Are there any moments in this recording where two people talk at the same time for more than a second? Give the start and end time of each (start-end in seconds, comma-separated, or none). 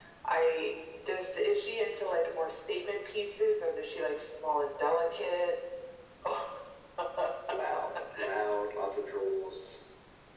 none